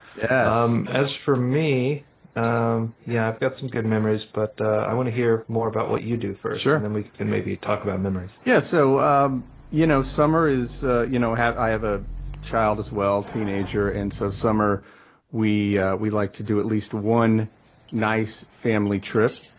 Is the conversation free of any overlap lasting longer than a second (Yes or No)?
Yes